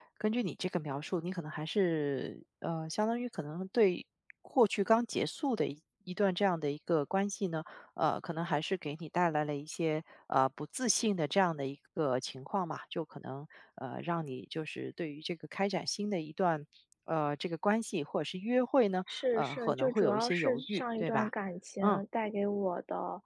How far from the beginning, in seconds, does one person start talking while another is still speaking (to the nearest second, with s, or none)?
19 s